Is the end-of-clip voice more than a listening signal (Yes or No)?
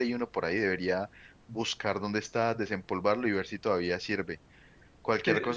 No